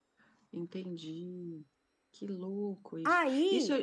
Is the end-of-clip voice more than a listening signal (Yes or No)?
No